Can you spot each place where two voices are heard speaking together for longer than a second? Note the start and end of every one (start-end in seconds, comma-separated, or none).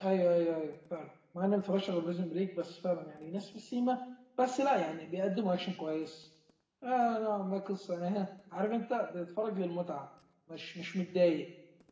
none